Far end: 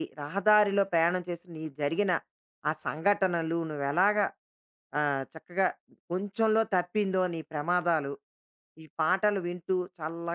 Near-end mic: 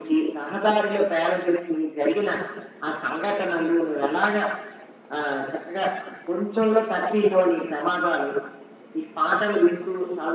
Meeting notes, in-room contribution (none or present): none